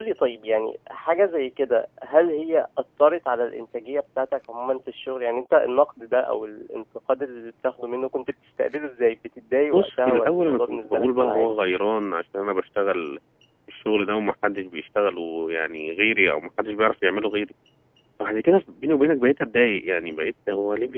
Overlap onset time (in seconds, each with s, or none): 9.7 s